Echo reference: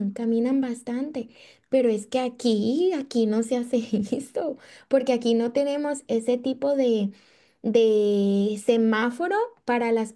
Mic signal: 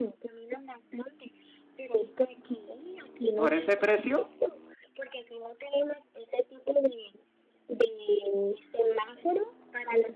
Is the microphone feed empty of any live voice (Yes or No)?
No